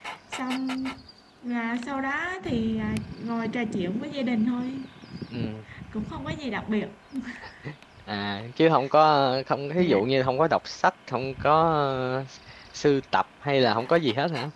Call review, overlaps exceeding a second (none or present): none